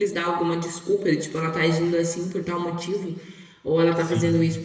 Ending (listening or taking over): listening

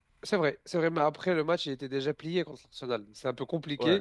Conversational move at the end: listening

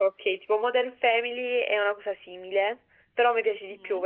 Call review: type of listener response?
listening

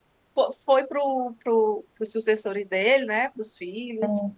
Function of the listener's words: listening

